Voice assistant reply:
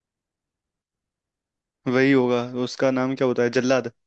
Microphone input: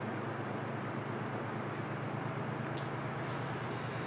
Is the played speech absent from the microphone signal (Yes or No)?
Yes